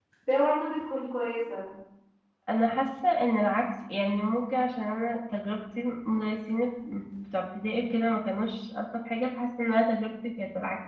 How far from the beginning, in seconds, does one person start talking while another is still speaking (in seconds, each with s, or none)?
none